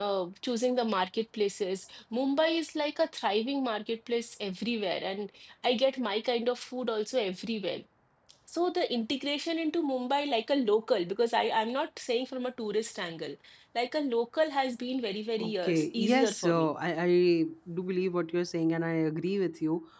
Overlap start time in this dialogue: 15.4 s

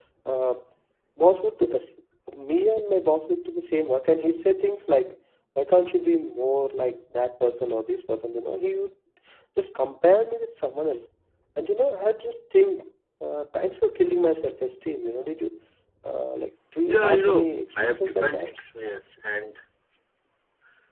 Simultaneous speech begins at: 16.9 s

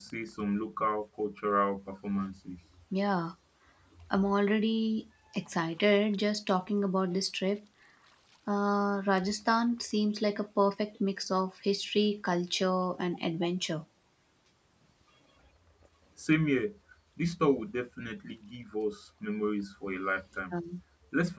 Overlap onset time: none

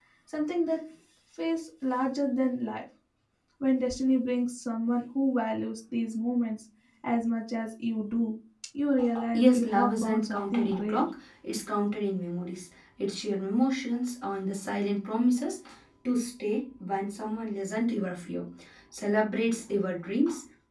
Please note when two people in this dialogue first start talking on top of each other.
9.2 s

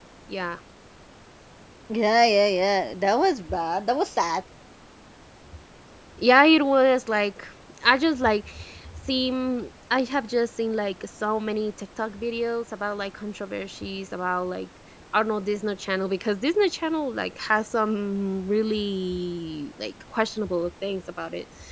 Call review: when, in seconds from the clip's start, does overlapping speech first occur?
none

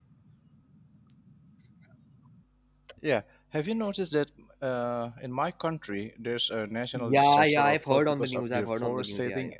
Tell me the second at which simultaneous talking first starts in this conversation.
6.9 s

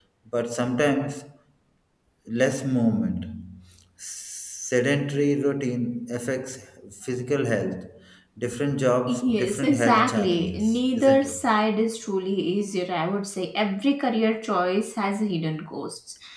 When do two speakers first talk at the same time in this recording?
9.1 s

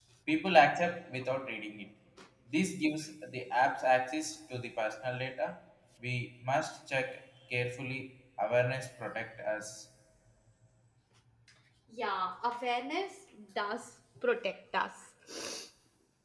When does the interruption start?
none

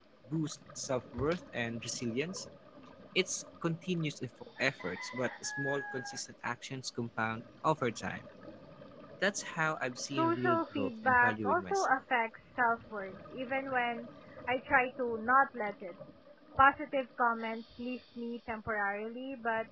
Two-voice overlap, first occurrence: 10.1 s

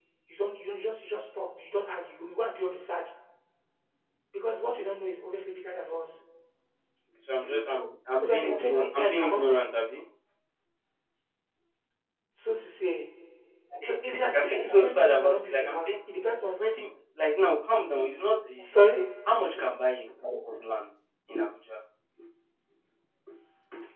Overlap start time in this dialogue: 8.2 s

